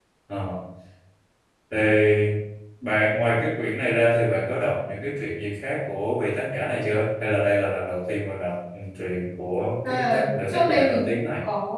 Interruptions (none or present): present